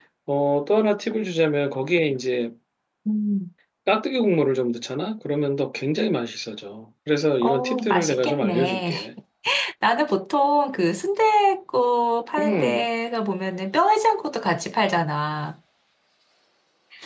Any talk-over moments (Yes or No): Yes